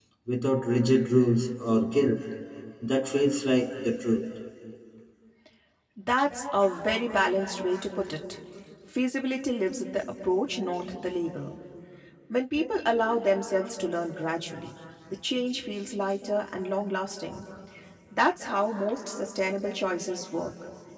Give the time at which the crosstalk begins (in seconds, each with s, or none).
none